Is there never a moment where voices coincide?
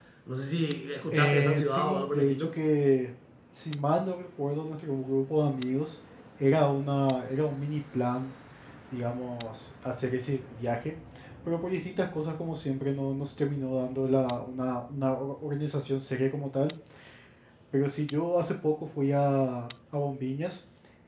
No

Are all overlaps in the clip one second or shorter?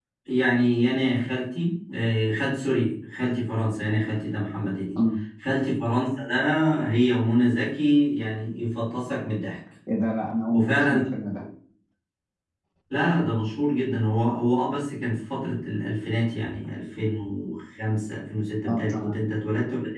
Yes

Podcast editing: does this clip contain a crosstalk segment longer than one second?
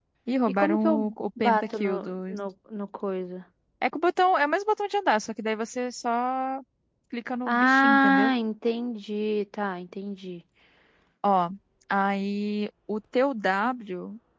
Yes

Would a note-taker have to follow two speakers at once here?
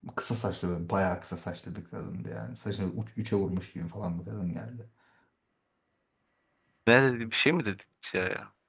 No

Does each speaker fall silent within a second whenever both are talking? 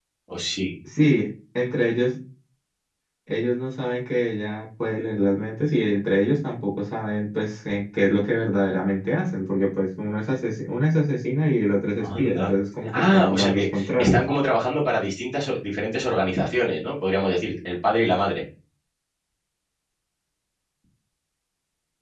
No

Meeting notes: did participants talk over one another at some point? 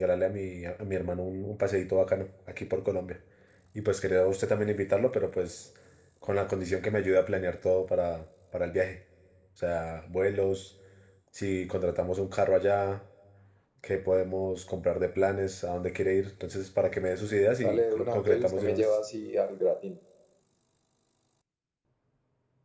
Yes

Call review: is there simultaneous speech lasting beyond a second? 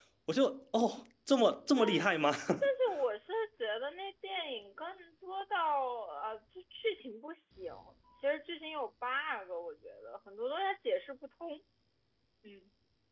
No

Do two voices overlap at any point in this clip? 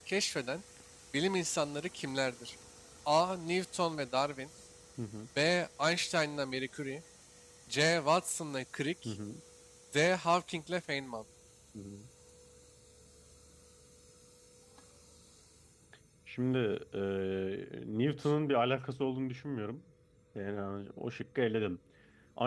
No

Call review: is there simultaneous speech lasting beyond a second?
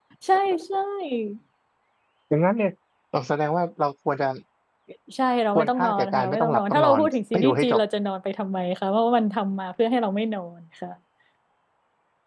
Yes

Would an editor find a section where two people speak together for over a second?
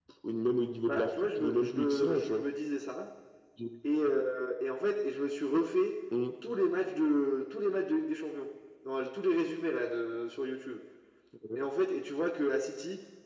Yes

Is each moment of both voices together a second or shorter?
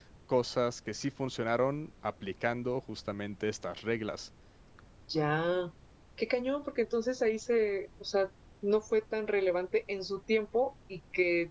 Yes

